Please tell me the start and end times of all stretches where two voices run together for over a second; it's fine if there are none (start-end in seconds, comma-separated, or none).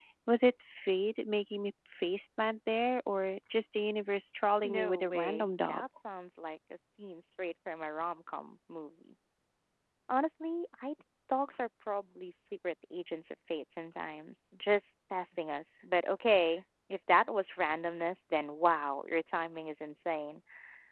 4.6-5.8